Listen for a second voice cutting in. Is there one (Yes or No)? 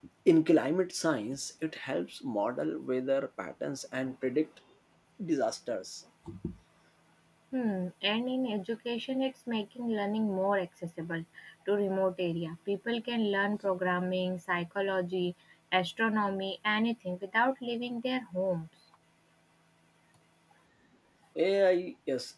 No